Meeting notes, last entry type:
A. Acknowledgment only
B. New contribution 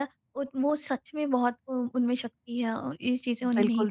B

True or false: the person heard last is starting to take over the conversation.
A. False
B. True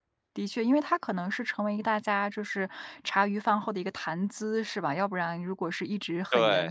A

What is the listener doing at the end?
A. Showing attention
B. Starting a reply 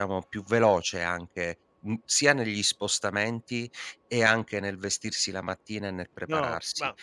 B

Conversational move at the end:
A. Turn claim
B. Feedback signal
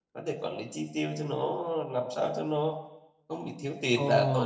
A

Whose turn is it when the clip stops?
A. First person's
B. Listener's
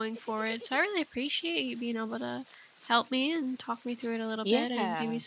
A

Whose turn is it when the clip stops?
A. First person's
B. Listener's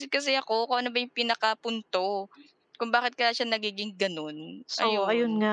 B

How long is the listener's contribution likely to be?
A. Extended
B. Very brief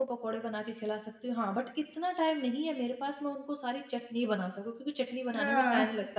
B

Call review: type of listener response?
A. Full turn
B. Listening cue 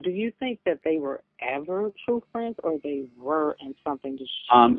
A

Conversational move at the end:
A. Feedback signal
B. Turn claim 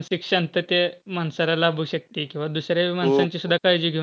A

